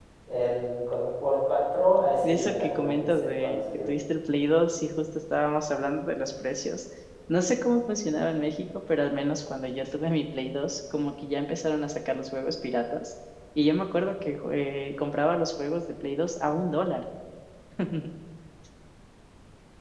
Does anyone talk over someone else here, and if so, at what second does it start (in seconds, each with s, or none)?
2.2 s